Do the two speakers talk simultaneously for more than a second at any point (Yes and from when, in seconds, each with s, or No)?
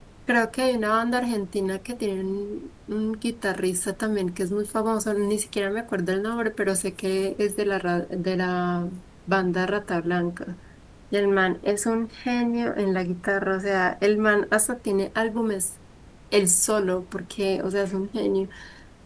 No